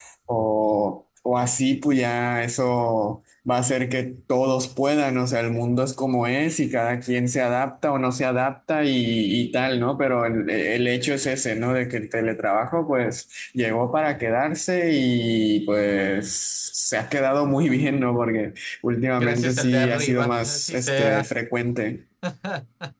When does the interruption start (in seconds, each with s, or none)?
19.2 s